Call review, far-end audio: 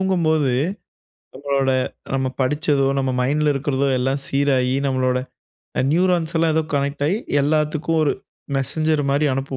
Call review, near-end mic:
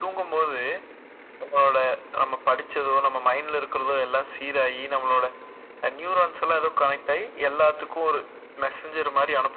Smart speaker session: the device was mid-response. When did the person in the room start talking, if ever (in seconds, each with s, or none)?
none